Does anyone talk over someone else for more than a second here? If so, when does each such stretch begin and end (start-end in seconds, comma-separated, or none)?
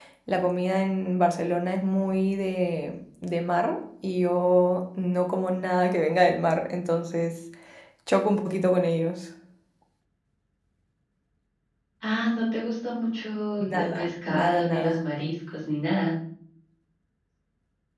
13.6-15.0